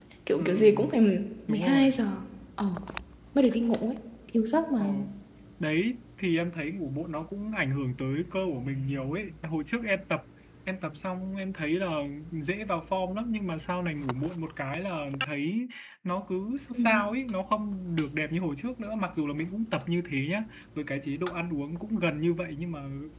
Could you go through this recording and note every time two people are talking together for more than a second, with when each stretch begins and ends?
none

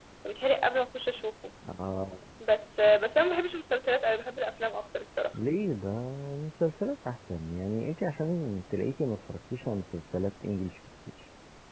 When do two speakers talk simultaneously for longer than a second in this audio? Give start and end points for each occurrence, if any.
none

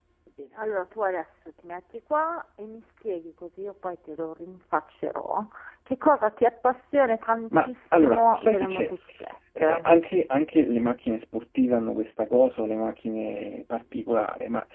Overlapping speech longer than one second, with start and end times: 7.5-8.9

